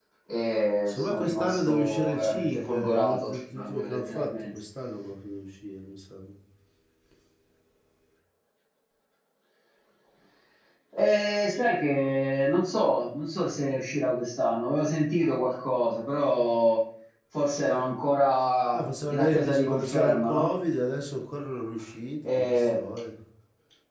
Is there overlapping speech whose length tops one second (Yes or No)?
Yes